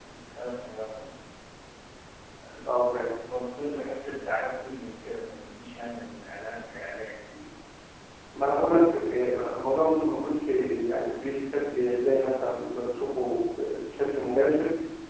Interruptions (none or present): none